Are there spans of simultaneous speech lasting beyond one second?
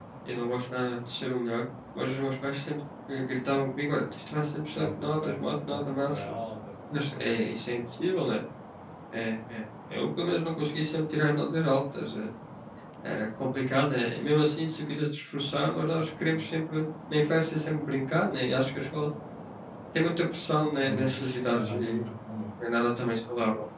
Yes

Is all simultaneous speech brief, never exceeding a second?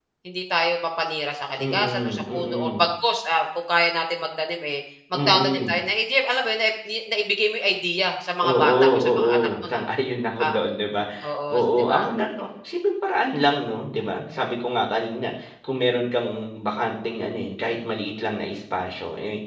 No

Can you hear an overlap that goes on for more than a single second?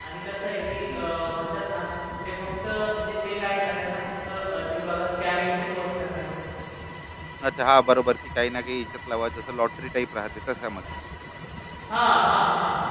No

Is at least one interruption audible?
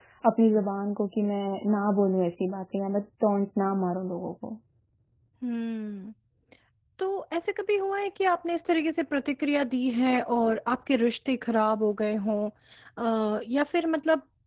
No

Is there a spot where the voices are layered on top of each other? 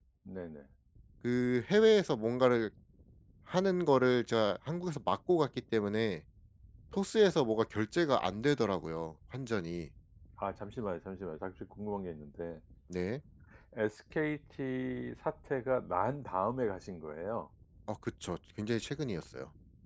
No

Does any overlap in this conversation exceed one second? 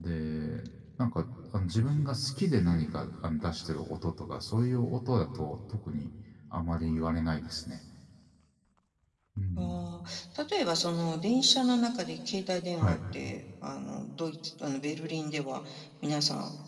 No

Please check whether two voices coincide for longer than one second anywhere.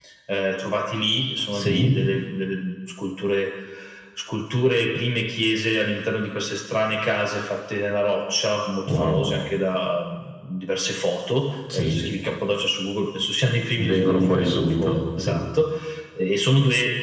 Yes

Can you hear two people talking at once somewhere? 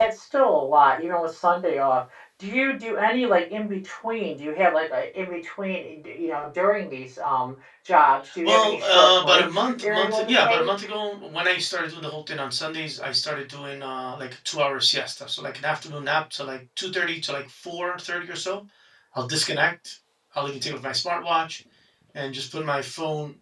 Yes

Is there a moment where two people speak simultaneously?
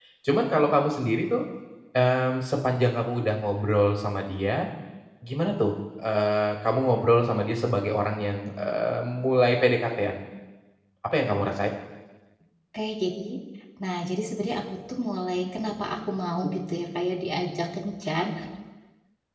No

